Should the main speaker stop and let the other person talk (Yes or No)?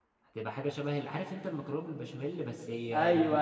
Yes